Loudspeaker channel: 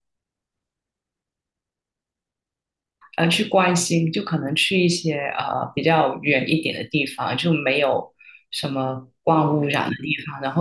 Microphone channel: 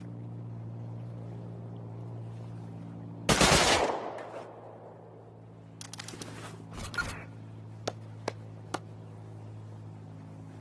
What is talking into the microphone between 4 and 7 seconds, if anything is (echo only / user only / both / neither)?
neither